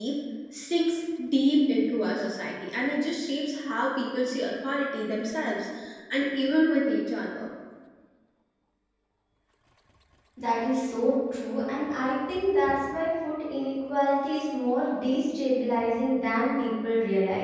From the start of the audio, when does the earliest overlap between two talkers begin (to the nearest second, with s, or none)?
none